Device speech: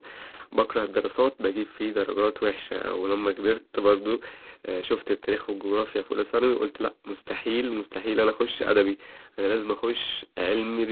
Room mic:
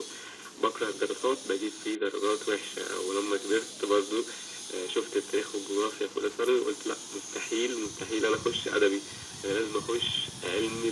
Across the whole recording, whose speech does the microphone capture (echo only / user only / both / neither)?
echo only